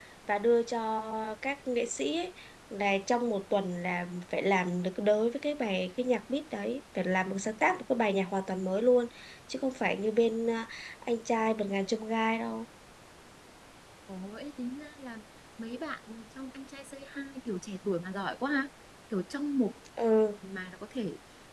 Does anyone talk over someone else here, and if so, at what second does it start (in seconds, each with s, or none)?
none